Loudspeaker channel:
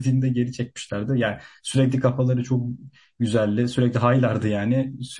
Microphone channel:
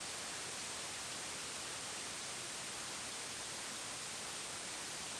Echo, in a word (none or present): none